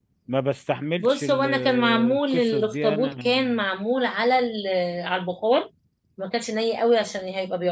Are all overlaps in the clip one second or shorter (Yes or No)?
No